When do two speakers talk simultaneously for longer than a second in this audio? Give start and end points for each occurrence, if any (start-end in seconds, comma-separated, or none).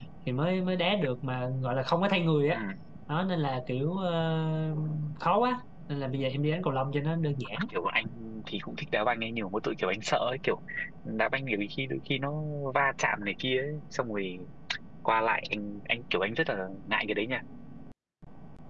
none